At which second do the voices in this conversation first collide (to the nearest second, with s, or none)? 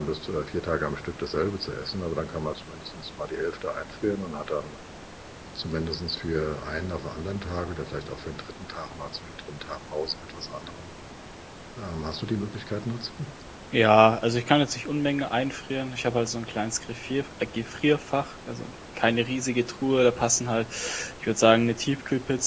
none